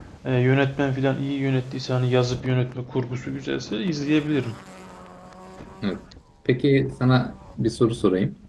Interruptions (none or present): none